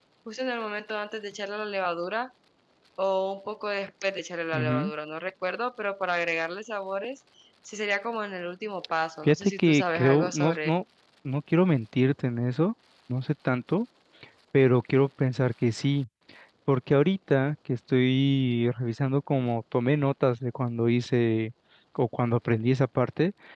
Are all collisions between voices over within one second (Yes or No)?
No